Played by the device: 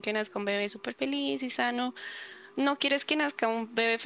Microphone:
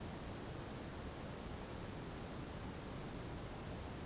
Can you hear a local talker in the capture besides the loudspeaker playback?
No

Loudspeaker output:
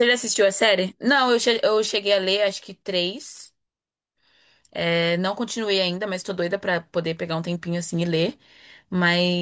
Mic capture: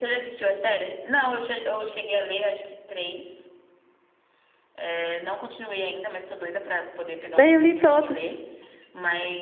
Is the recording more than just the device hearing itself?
Yes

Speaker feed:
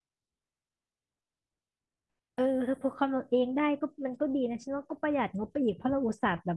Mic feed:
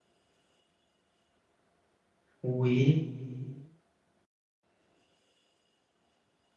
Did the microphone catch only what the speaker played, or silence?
No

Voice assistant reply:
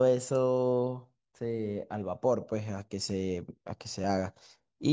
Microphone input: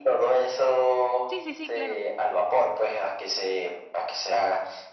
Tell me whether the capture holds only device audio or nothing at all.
No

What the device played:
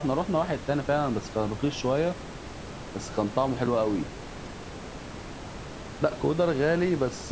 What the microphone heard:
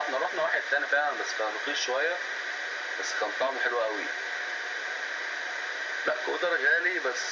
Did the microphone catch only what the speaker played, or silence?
Yes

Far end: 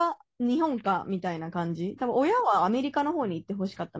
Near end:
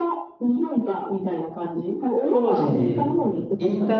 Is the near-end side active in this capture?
Yes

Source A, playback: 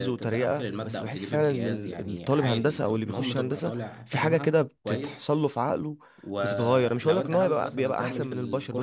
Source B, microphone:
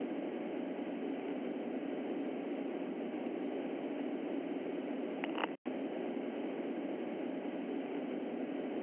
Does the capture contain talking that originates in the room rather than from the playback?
No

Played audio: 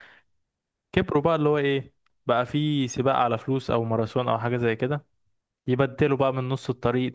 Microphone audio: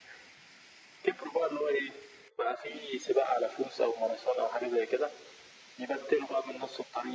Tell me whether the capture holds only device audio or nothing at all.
Yes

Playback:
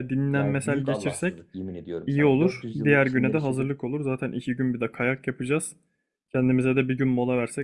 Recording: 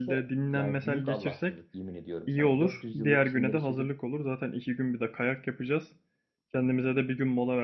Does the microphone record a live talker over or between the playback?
No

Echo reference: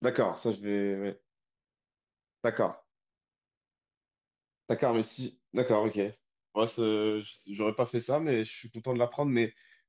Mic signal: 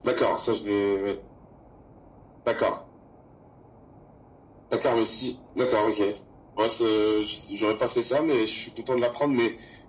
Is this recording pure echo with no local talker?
Yes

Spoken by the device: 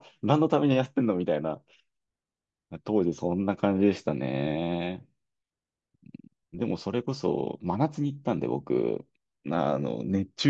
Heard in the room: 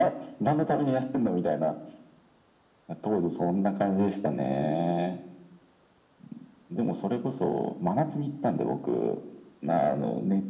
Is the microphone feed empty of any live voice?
Yes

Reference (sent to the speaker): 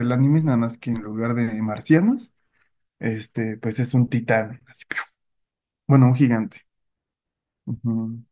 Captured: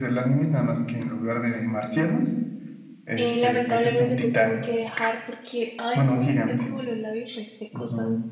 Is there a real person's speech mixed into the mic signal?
Yes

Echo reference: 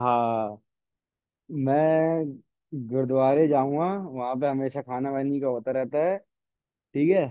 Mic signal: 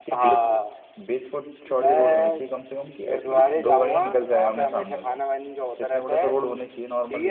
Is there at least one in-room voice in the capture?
Yes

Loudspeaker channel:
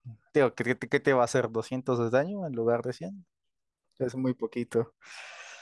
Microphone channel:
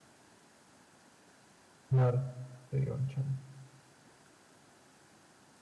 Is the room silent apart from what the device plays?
No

